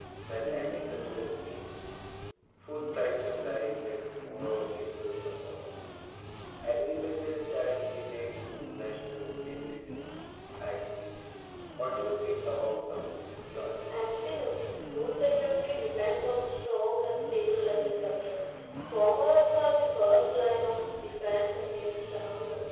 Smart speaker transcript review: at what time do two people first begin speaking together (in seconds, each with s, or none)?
none